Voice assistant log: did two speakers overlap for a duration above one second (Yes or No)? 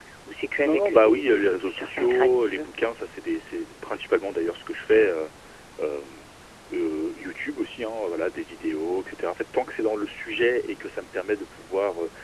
Yes